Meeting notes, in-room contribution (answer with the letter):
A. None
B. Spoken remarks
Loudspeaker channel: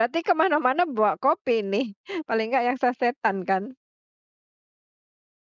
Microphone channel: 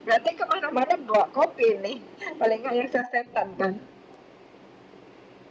A